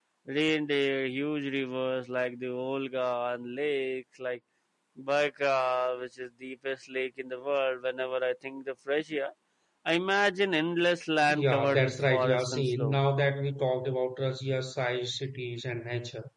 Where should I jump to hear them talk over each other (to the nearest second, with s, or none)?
11 s